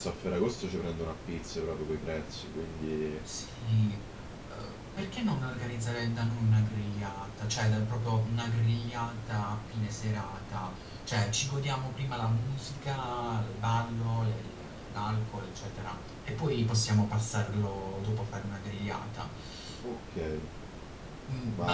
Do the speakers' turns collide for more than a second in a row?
No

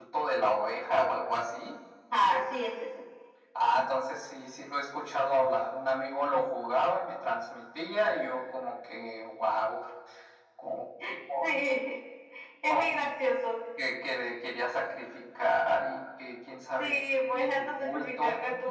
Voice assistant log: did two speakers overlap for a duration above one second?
Yes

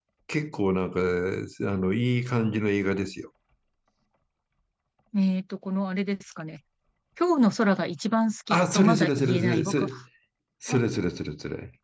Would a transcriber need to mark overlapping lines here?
Yes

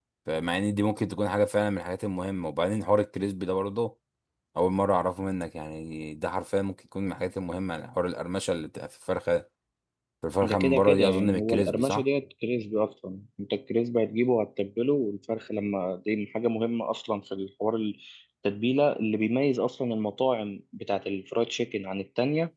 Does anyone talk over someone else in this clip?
Yes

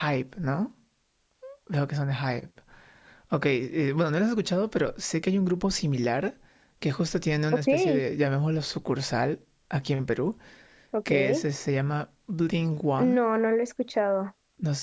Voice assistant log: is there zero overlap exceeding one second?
Yes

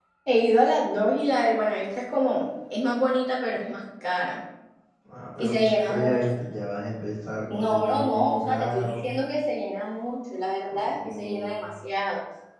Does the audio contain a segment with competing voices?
Yes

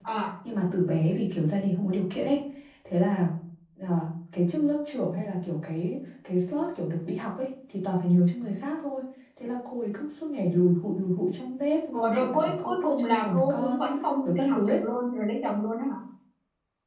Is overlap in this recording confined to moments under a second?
No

